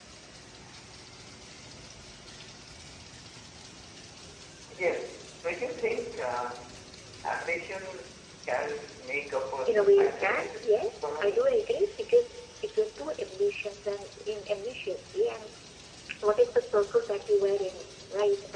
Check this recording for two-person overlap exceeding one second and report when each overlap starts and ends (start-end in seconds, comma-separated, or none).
9.7-11.6